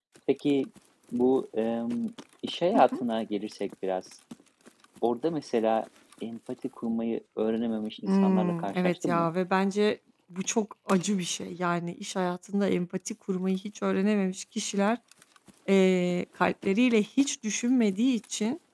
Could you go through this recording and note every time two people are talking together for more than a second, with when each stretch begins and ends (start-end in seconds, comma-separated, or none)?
8.0-9.3